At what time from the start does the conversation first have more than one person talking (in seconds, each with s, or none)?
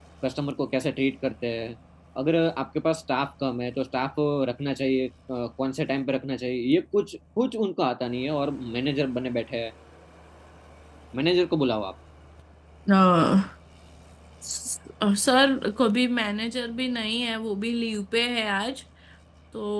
none